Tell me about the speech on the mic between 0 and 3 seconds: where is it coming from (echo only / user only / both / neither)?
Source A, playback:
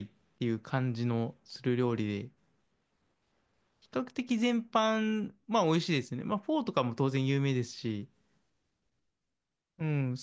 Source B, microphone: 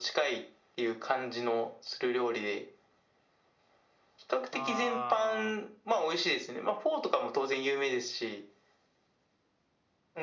echo only